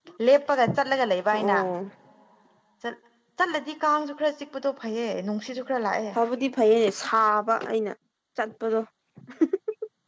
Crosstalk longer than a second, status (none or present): none